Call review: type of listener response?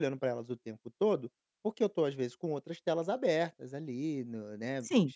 taking over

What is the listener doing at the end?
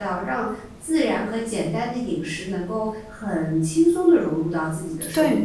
taking over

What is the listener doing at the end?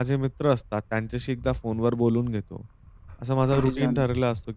listening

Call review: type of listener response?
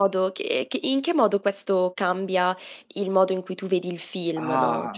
taking over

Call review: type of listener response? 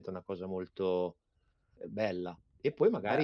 listening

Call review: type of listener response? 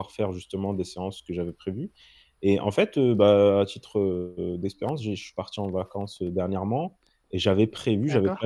listening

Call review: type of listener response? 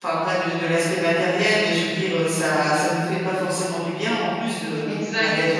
listening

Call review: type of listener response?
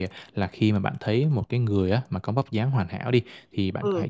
listening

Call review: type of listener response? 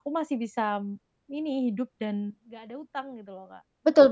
taking over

